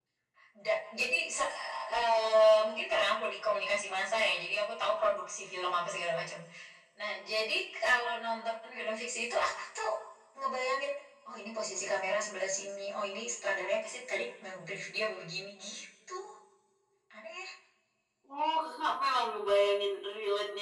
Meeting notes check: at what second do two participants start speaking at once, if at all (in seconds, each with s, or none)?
none